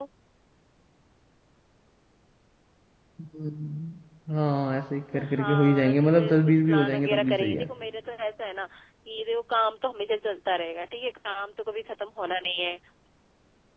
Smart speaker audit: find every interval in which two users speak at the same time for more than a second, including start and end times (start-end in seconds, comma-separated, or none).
5.3-7.7